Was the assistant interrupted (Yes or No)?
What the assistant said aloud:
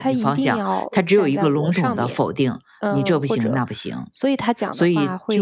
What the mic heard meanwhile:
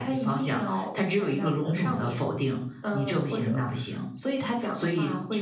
No